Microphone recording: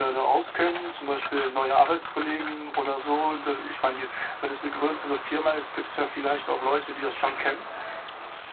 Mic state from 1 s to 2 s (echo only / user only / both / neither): echo only